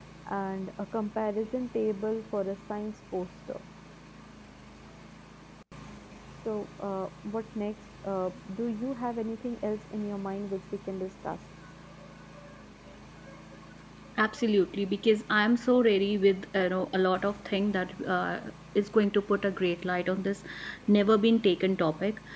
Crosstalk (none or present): none